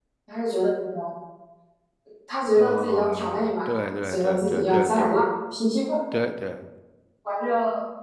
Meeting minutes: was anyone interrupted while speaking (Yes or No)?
Yes